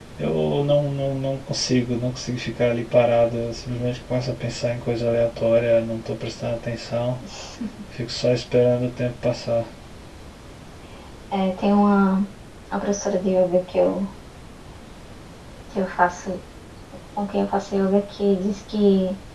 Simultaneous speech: No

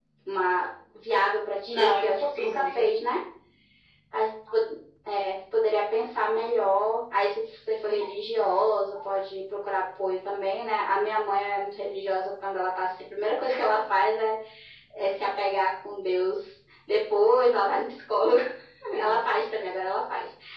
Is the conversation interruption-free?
No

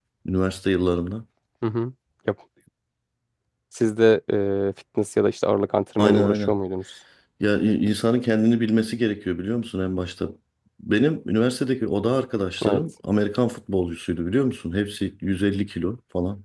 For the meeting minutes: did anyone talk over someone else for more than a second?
No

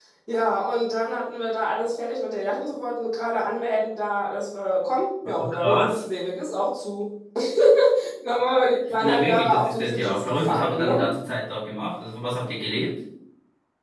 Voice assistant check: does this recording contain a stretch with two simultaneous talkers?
Yes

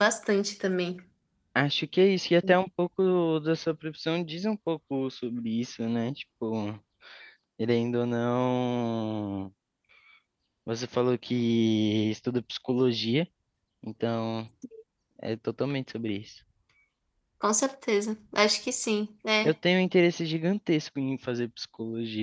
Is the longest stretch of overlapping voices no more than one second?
Yes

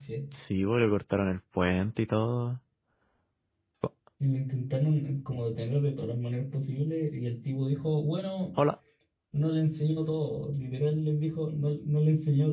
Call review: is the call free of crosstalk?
Yes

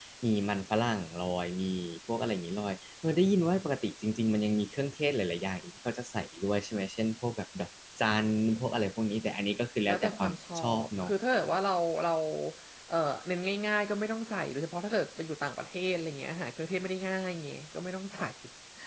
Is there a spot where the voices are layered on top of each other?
Yes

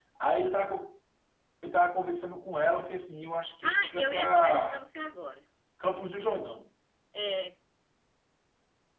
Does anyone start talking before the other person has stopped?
Yes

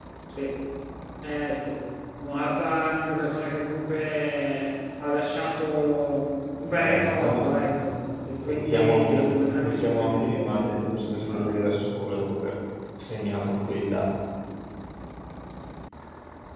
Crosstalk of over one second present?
Yes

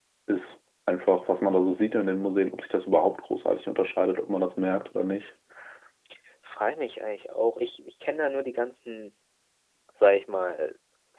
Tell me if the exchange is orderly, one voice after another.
Yes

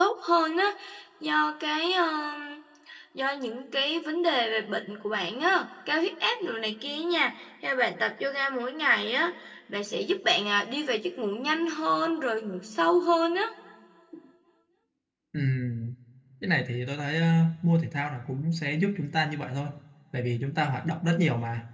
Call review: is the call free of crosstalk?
Yes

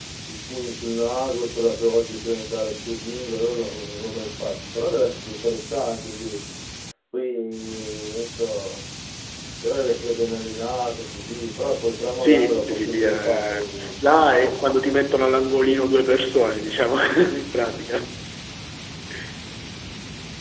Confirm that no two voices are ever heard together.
No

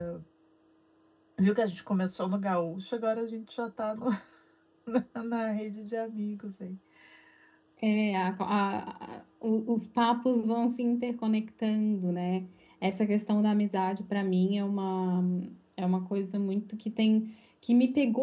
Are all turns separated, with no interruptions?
Yes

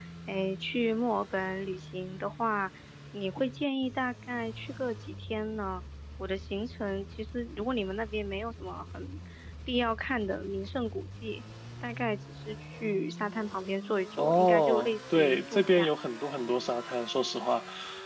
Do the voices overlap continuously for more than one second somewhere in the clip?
Yes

